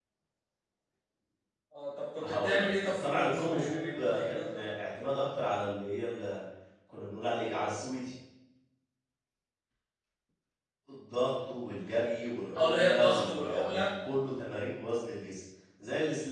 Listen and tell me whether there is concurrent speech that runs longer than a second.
Yes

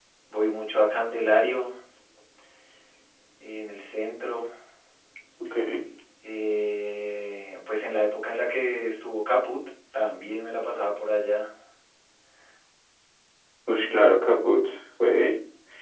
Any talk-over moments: No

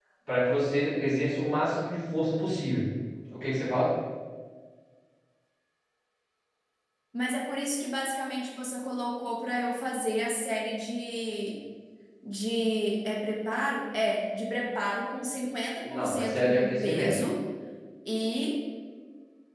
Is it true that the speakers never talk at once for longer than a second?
No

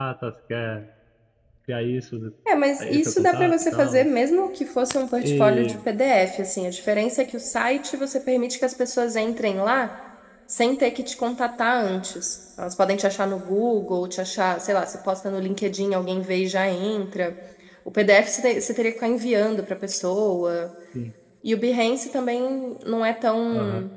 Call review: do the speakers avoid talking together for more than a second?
No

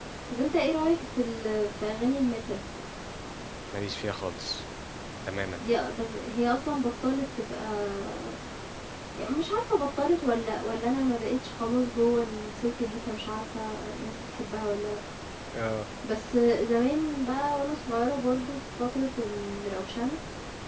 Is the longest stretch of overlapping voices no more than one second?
Yes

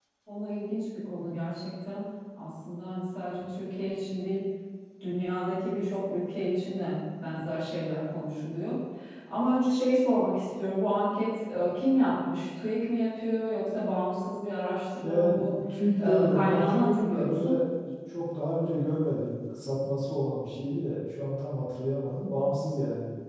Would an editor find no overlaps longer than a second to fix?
No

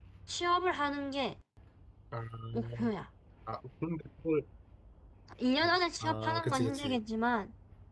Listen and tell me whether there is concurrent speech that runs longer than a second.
Yes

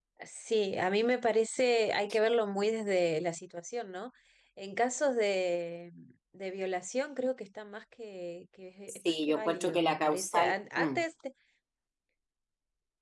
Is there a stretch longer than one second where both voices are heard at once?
Yes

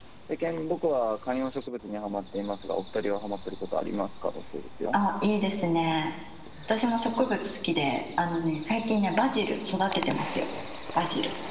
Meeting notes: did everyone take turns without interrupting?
Yes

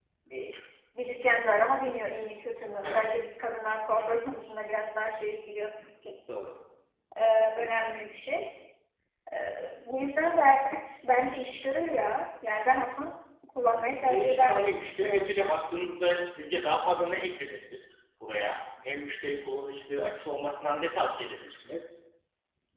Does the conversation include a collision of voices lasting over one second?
Yes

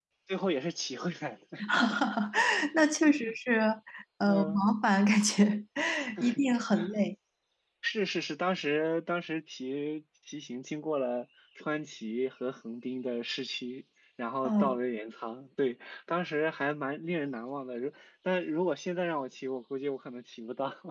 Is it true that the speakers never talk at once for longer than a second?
Yes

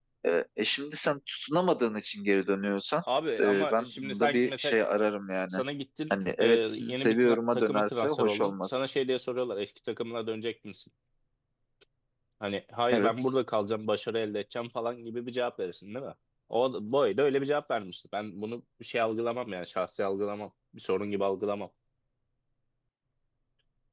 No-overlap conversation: No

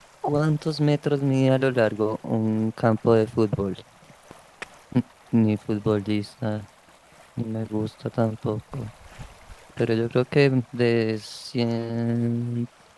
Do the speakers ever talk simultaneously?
No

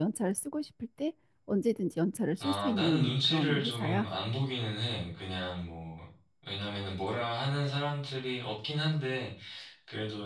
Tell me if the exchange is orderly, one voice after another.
No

